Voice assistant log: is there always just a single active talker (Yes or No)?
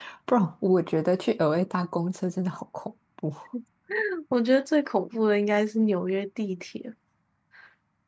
Yes